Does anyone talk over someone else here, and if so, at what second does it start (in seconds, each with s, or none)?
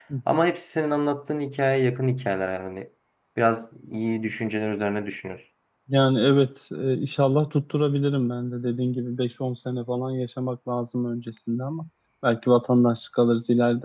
none